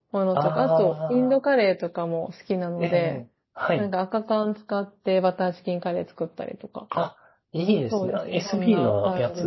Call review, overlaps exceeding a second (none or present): present